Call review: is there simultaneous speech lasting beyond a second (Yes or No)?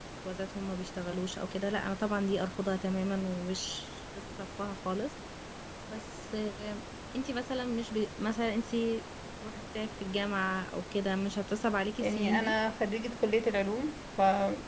No